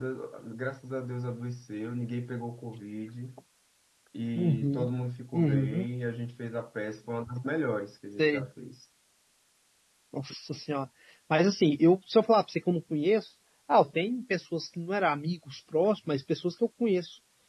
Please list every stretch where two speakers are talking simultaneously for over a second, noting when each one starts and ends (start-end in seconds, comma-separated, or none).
none